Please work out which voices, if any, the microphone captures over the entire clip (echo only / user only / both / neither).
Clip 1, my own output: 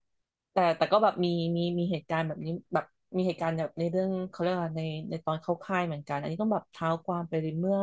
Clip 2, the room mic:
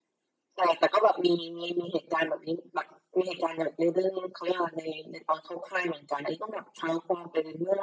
echo only